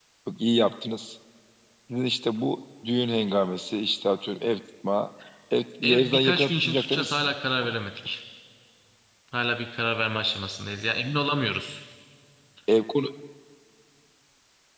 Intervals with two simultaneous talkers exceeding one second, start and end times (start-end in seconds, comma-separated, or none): 5.8-7.3